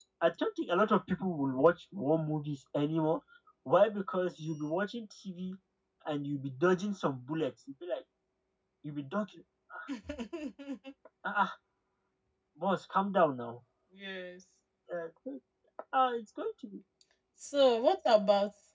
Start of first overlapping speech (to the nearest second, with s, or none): none